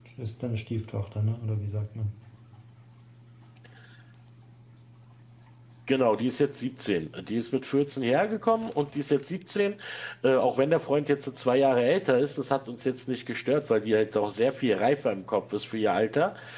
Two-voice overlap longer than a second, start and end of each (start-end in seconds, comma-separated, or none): none